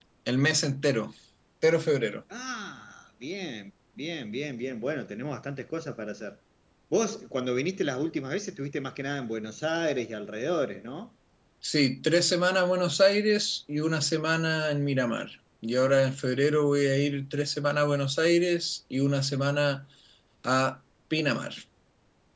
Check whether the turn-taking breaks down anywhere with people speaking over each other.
No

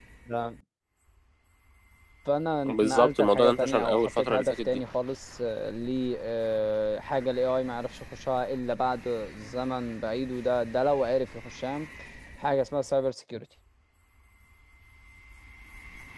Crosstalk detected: Yes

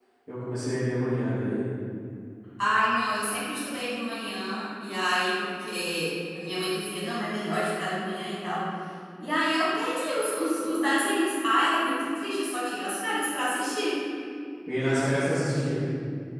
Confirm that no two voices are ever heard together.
Yes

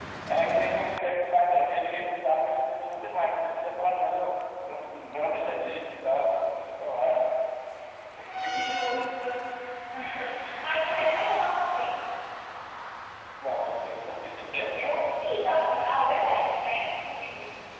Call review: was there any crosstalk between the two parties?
No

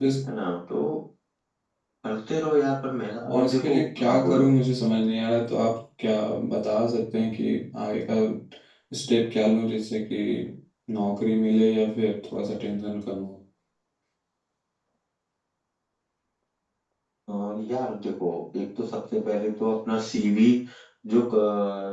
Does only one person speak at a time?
No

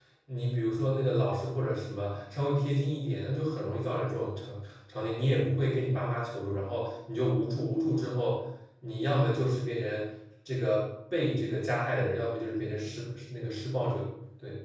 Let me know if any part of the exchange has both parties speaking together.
No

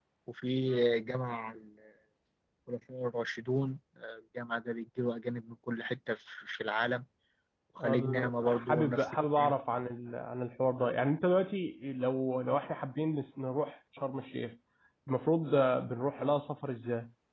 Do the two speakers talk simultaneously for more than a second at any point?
Yes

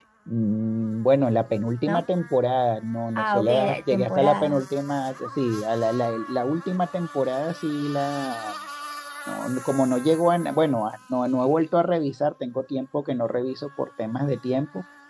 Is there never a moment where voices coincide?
No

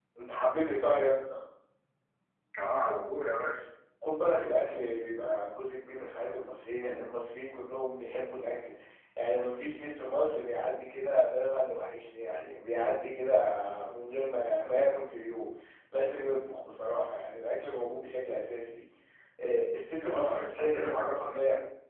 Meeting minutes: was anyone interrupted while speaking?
Yes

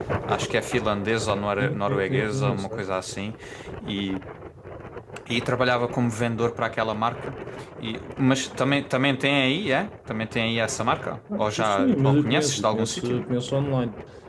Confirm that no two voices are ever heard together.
No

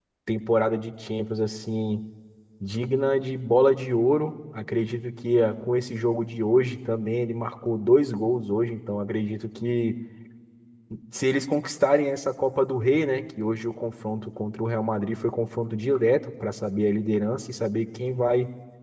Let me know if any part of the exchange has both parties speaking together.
No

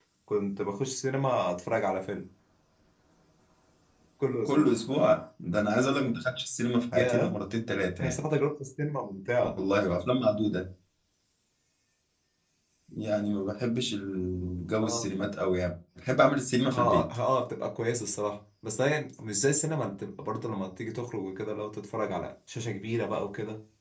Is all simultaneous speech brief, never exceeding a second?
Yes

